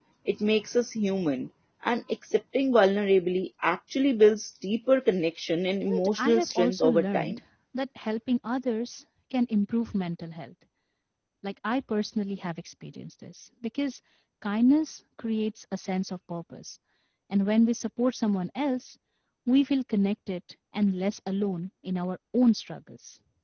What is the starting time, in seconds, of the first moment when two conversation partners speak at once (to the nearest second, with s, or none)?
6 s